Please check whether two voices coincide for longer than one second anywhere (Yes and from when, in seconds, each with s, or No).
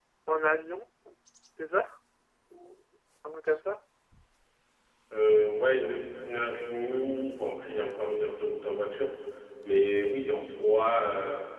No